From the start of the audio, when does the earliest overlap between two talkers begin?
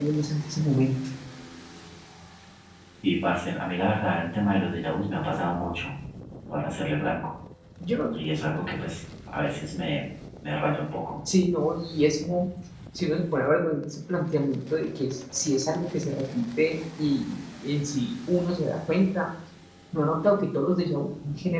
none

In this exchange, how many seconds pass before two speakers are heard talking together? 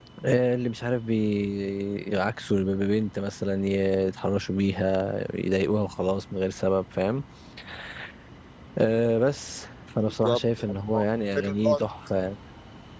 10.0 s

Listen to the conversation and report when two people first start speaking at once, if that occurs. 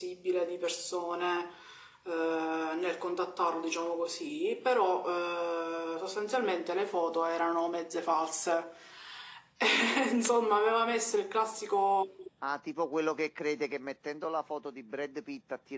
none

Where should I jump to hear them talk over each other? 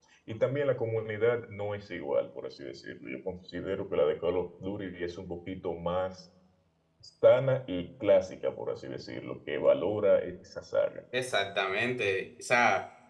none

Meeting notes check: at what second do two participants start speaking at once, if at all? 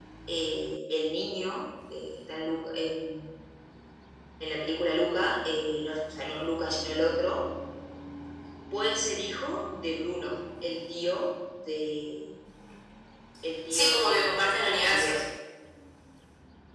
13.7 s

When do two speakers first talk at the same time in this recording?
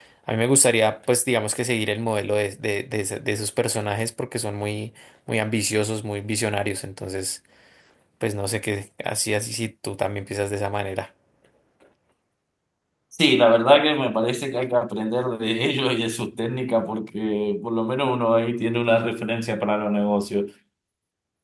none

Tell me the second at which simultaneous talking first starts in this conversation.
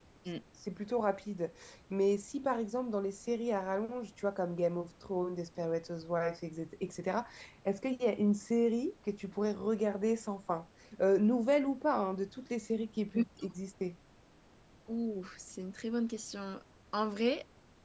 none

